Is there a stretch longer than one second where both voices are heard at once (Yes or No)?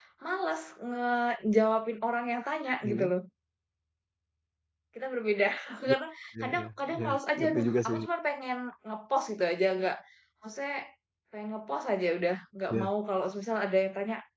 Yes